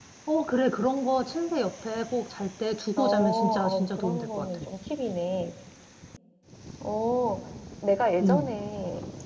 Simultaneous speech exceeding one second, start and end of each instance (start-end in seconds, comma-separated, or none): 3.0-4.6